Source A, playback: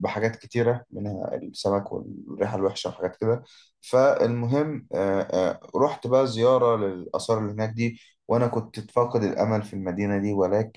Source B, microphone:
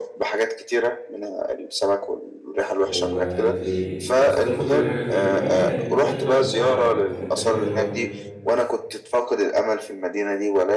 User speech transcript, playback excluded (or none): وقالت لي وصفت لي كل حاجه فيه وفعلا كانت رحله ممتعه وكانت رحله حلوه